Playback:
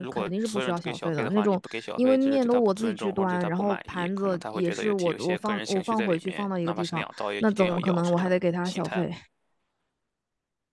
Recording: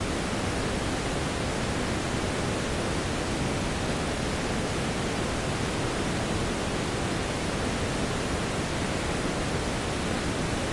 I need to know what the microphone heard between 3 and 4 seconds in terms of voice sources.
neither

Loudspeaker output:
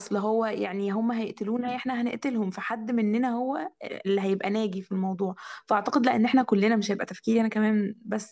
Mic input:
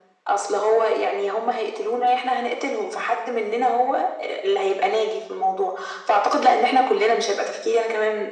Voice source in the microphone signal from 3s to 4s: echo only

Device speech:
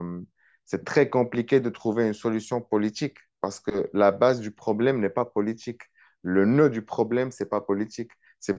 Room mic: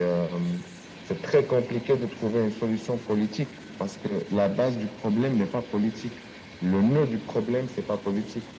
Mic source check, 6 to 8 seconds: echo only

